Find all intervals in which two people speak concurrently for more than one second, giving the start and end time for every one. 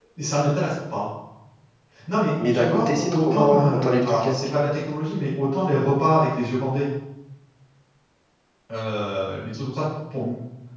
2.5-4.4

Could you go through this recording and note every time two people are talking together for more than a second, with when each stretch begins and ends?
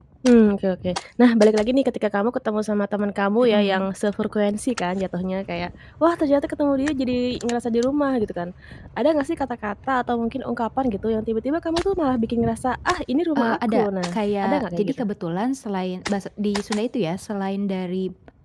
13.4-15.0

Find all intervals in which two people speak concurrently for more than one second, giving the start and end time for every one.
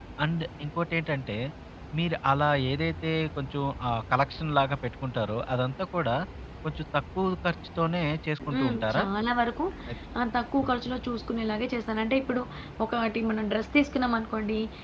none

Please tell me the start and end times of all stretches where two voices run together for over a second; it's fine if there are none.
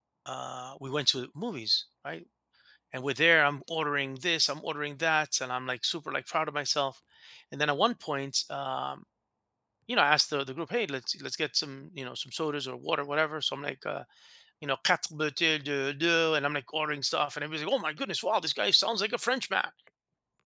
none

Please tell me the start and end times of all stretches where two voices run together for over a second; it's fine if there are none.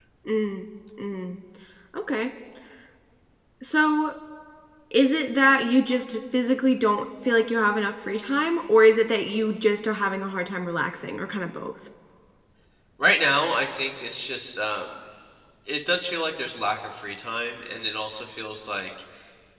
none

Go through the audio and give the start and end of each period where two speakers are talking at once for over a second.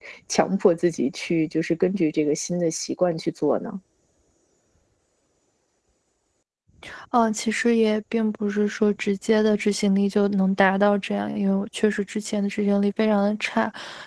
none

